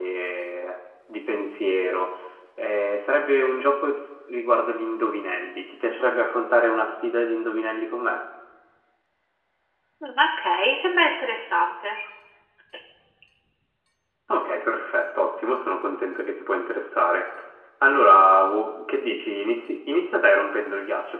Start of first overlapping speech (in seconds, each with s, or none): none